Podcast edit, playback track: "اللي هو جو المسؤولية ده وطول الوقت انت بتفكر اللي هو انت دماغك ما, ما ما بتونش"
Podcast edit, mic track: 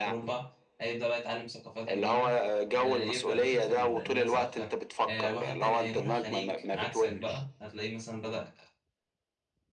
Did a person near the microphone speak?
Yes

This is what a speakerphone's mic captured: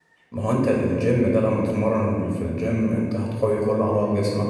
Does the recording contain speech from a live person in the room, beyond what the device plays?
Yes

